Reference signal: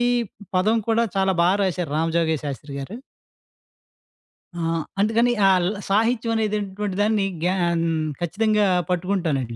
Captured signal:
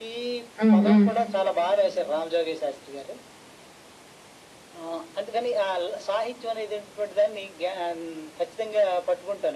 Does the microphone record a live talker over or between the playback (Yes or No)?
Yes